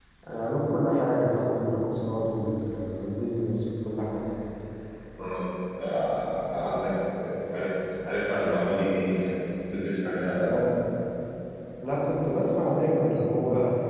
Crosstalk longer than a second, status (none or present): none